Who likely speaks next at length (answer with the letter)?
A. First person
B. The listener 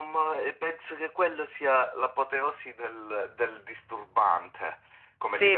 B